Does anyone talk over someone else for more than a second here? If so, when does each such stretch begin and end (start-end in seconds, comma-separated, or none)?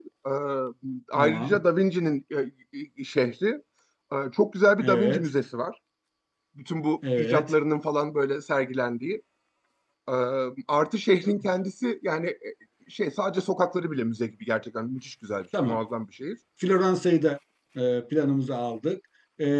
none